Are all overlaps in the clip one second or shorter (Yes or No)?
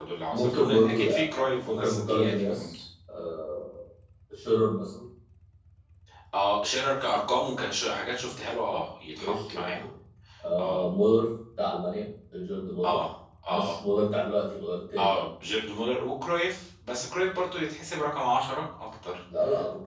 No